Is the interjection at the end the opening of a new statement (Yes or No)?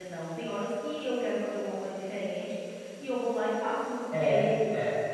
No